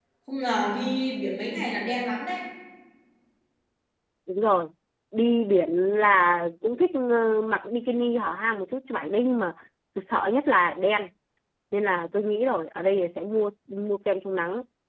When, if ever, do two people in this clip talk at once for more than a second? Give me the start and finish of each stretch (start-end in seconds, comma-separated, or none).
none